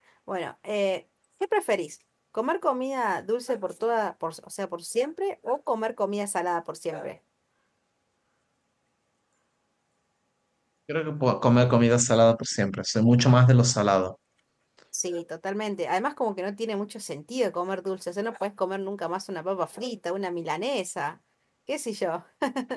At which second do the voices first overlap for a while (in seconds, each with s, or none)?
none